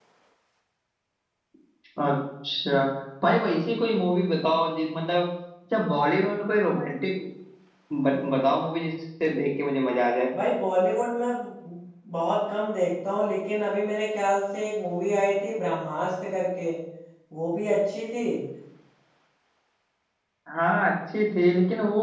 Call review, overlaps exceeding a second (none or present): none